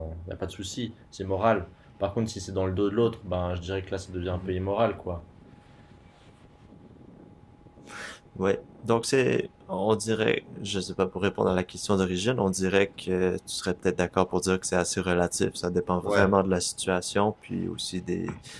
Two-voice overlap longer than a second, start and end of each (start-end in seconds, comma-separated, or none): none